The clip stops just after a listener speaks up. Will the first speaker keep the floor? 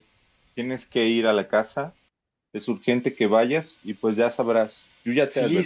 No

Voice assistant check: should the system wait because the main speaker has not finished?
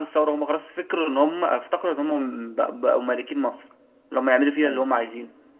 Yes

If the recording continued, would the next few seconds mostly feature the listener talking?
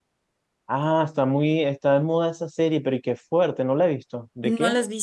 Yes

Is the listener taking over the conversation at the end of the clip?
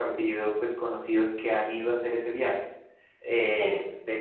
No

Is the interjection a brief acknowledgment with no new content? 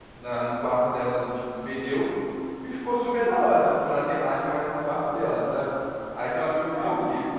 Yes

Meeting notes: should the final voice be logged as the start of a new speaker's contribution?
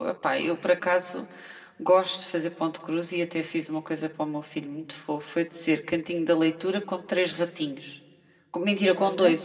No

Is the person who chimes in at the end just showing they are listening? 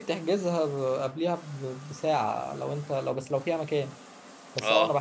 Yes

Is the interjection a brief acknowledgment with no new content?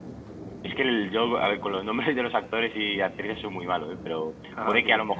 Yes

